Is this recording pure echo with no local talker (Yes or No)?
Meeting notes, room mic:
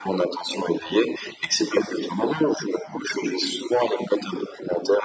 Yes